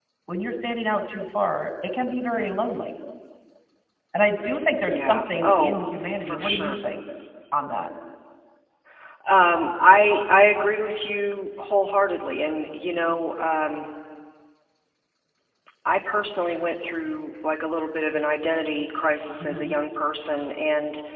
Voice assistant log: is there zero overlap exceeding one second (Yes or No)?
No